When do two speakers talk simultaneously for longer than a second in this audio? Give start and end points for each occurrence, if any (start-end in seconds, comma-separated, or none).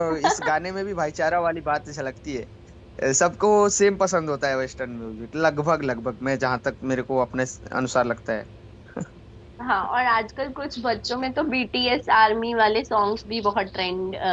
none